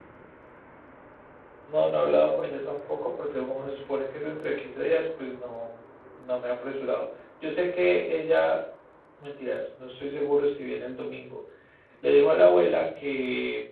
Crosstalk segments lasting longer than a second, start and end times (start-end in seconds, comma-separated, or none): none